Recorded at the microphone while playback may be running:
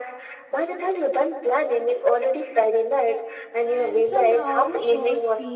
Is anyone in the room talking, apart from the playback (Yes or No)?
Yes